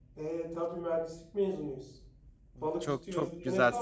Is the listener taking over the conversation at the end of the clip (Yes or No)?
Yes